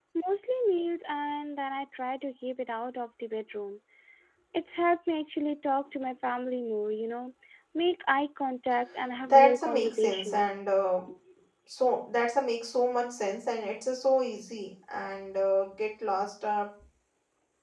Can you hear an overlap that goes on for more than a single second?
Yes, from 9.2 s

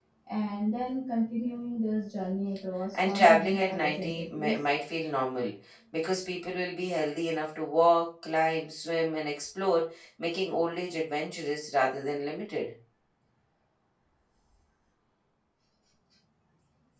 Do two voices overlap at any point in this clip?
Yes, from 2.9 s

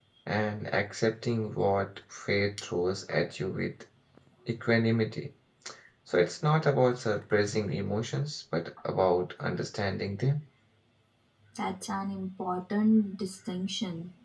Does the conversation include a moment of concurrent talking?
No

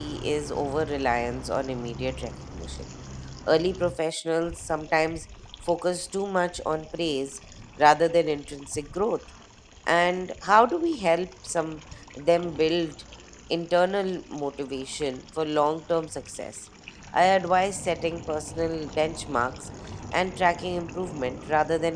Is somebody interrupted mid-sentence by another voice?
No

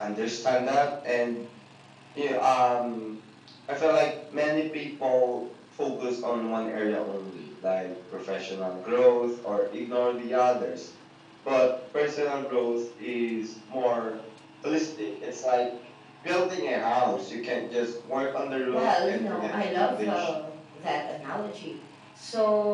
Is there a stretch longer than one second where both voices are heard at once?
Yes, from 18.7 s

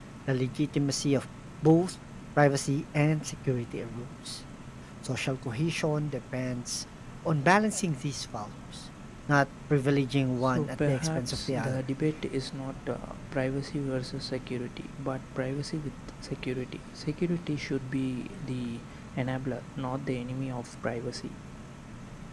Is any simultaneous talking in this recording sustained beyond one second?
Yes, from 10.4 s

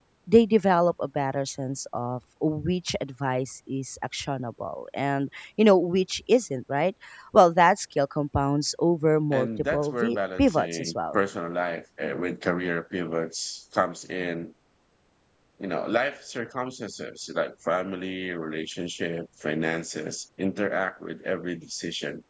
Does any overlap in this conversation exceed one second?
Yes, from 9.3 s

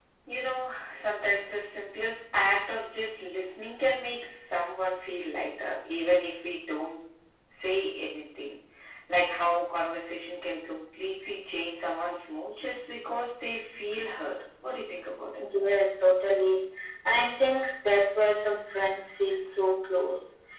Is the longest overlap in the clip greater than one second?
No

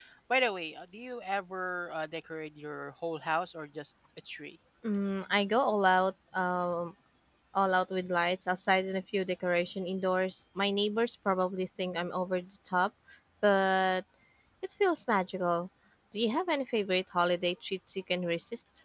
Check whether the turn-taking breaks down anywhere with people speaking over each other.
No

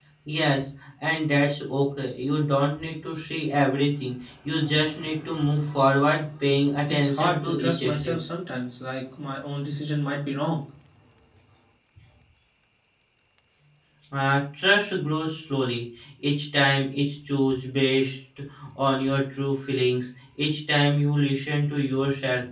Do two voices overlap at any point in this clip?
Yes, from 6.9 s

